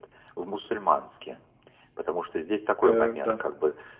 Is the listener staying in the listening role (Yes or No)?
Yes